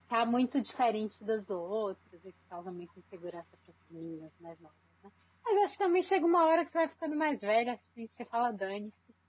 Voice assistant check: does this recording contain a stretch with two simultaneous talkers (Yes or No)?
No